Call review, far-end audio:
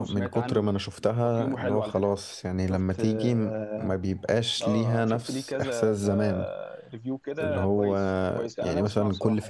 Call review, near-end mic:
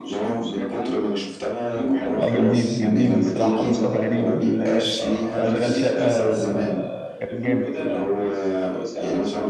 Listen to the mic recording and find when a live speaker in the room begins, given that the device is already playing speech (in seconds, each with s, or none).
2.2 s